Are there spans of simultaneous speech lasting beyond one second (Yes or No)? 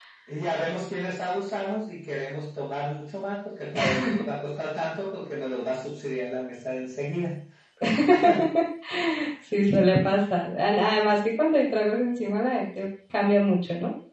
No